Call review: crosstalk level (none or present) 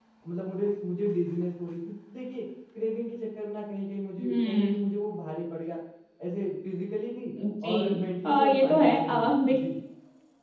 present